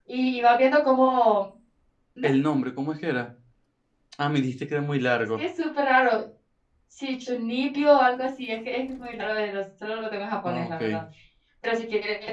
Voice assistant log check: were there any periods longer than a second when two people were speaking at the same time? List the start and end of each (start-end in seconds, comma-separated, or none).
none